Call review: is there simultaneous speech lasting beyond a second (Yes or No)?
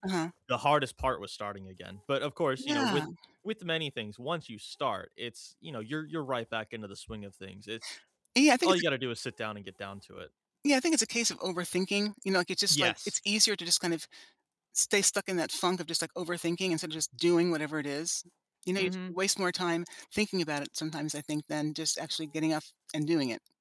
No